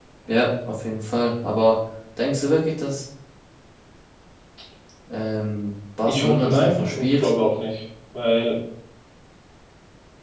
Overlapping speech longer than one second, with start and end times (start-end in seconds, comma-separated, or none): 6.1-7.3